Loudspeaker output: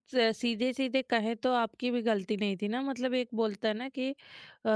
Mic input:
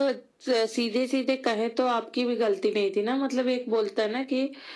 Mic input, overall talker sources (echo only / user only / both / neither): echo only